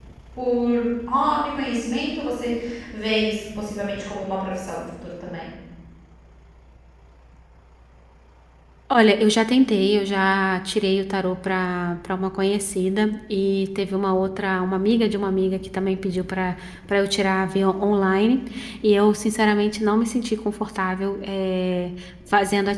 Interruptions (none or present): none